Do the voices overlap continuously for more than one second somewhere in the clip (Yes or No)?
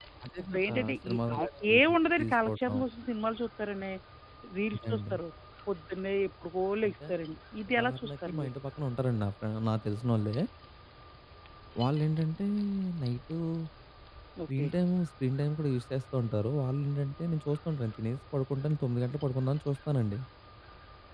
Yes